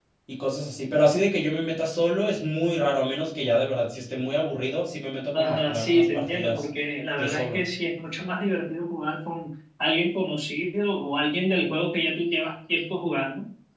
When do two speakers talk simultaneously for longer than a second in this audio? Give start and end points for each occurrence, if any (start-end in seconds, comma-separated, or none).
5.3-6.6